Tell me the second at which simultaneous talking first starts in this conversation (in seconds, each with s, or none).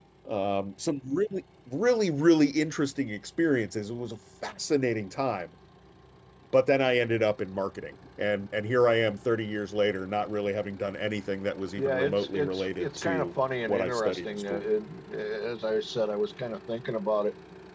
11.8 s